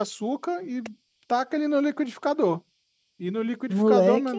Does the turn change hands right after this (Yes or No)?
No